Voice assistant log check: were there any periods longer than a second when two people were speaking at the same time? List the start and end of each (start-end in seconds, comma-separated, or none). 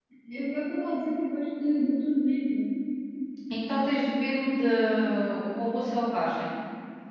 none